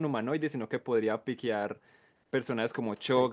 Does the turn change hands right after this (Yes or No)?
No